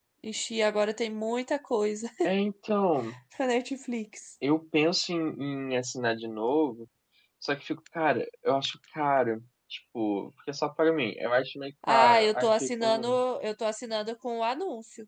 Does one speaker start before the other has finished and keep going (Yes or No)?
Yes